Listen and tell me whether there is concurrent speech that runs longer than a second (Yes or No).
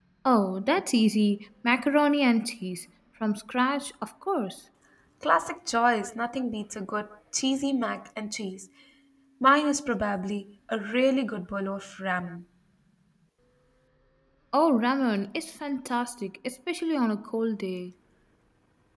No